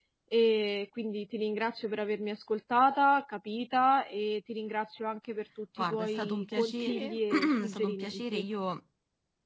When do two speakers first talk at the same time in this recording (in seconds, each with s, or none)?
5.8 s